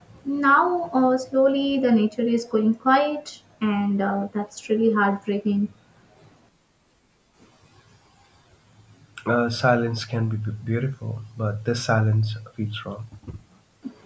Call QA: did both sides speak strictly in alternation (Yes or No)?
Yes